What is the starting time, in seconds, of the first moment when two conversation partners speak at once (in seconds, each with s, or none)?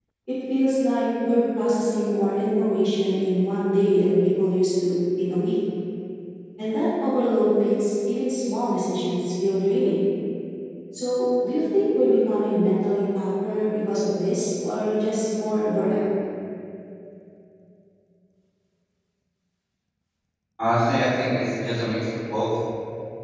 none